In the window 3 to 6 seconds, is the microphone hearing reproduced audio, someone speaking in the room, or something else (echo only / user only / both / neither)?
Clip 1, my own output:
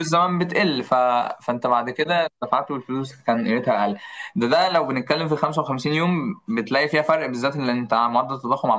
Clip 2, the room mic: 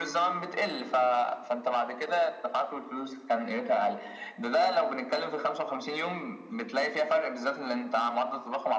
echo only